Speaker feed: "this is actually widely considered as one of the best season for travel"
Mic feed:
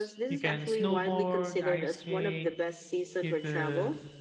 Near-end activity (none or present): present